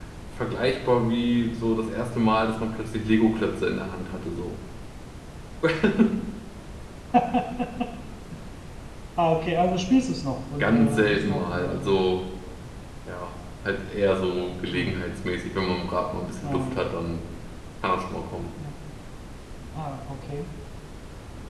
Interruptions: present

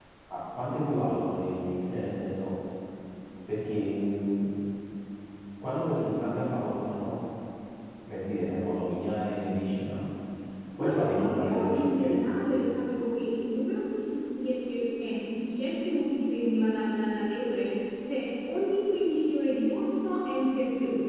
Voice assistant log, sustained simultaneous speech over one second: present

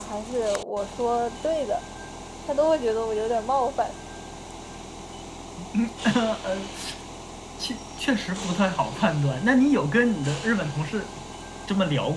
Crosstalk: none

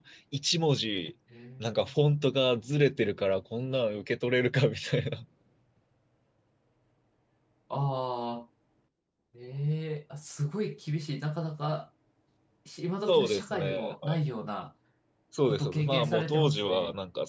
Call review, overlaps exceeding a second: present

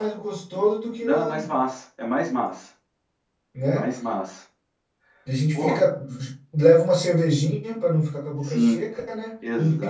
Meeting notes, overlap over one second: none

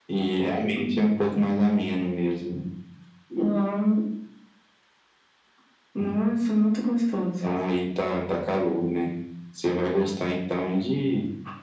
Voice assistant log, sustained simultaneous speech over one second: none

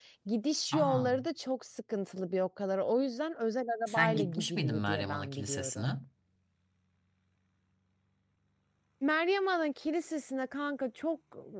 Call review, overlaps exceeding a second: present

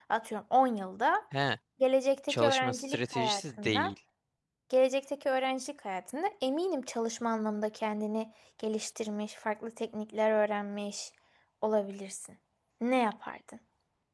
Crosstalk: present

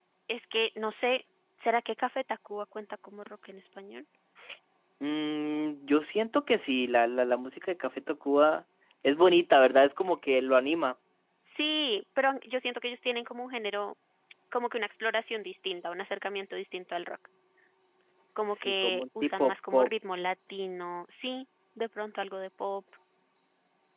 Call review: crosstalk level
present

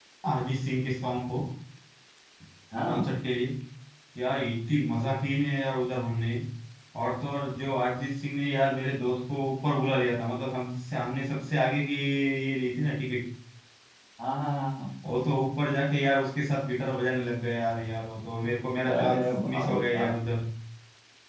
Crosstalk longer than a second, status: present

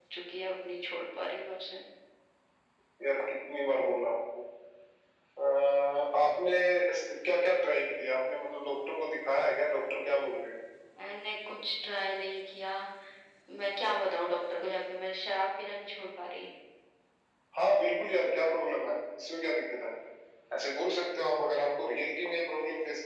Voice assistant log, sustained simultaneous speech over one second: none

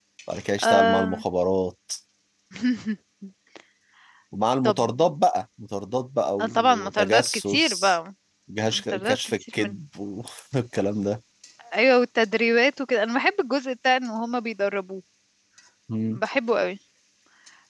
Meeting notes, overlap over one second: present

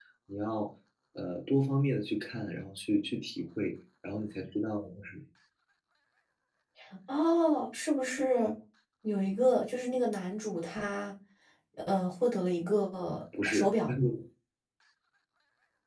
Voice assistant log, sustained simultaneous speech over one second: none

